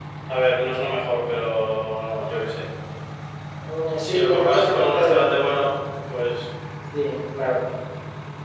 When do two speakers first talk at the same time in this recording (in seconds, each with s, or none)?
4.0 s